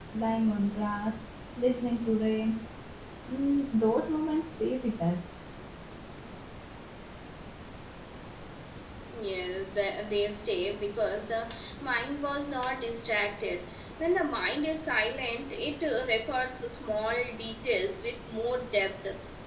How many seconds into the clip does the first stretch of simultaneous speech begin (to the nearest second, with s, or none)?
none